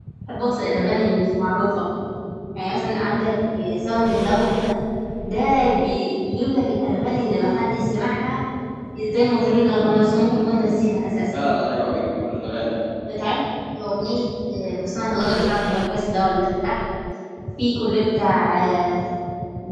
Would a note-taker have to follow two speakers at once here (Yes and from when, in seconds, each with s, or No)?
No